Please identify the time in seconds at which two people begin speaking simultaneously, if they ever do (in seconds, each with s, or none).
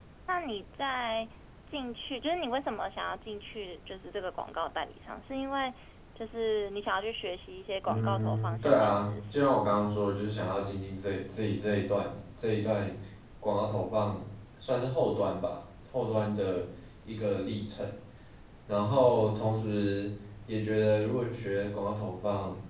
7.8 s